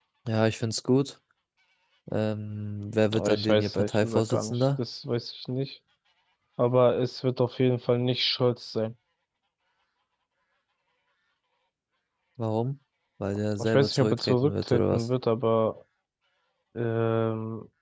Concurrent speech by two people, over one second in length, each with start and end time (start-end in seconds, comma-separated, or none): 3.1-4.8, 13.6-15.1